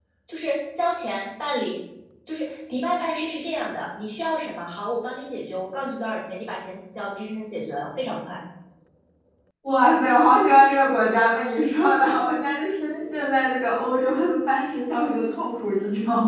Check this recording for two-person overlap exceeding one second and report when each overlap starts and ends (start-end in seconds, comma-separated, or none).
none